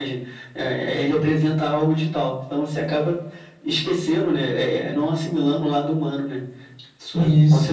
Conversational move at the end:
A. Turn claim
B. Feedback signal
A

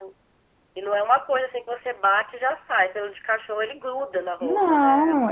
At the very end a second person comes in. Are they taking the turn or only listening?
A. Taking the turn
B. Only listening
A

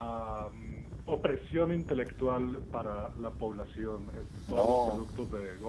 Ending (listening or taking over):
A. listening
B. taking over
A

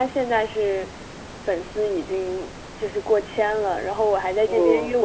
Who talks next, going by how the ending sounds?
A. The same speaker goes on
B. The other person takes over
A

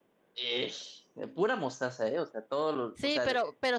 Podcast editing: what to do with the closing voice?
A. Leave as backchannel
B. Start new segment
B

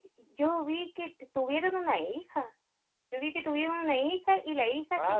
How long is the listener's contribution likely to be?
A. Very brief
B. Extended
A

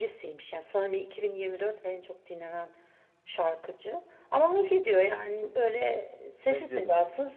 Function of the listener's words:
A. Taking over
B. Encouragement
B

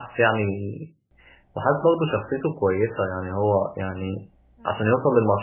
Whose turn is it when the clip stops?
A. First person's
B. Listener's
A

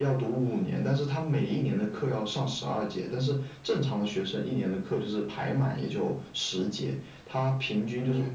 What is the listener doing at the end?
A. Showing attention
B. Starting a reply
A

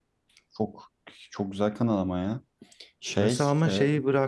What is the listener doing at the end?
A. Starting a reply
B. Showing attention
A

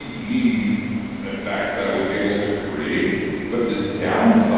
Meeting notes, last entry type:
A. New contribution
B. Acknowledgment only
B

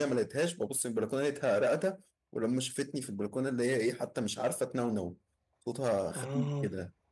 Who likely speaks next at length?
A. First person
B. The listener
A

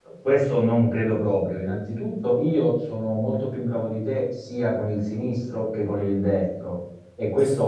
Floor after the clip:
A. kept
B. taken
A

